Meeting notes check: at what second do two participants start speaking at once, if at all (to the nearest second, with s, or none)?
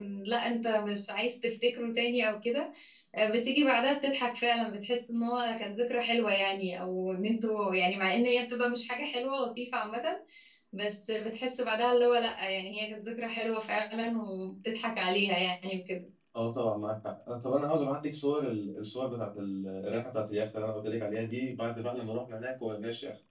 none